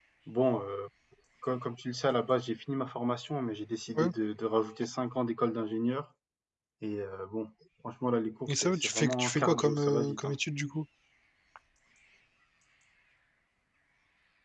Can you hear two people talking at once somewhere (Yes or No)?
Yes